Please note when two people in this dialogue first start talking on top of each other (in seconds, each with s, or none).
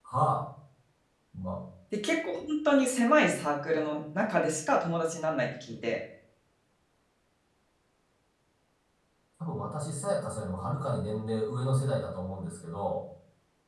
none